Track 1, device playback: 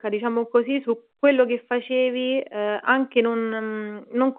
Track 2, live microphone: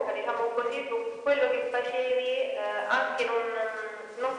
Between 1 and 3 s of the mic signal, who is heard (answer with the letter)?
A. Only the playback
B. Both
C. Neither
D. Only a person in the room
A